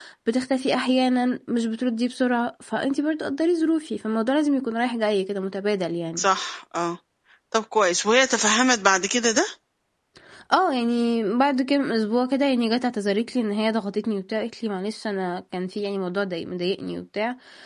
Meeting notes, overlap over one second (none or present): none